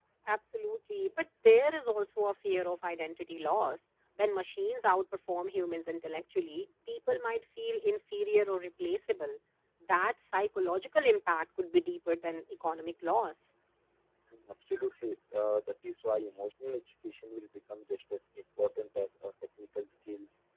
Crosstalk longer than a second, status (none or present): none